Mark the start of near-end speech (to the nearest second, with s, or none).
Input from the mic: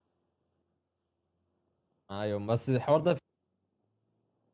2 s